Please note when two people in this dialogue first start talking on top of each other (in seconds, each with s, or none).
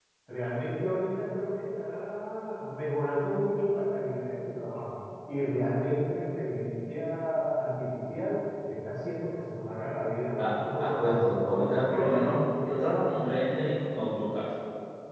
11.0 s